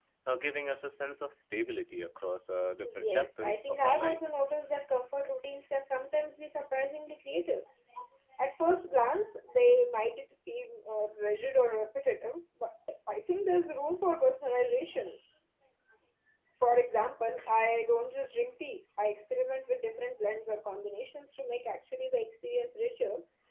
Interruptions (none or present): present